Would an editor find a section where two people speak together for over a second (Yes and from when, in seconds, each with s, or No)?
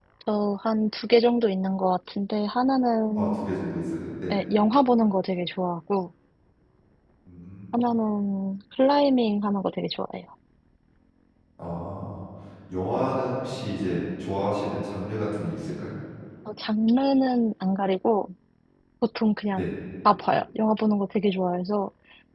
No